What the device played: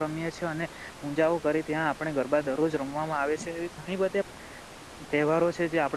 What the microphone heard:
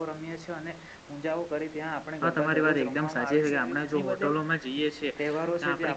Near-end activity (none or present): present